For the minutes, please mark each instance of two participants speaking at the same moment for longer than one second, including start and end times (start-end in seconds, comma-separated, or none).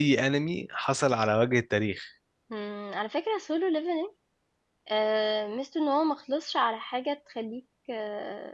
none